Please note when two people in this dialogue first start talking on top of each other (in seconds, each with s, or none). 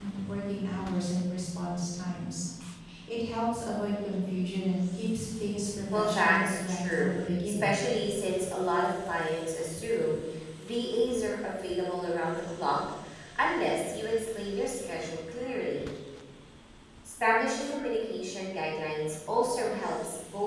5.9 s